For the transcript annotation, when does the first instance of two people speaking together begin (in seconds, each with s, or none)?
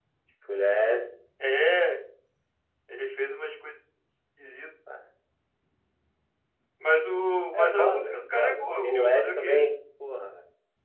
7.5 s